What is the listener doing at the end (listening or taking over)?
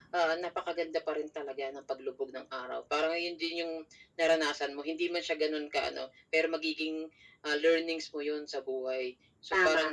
listening